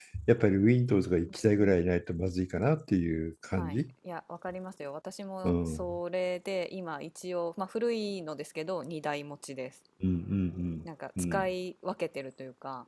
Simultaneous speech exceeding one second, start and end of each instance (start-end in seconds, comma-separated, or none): none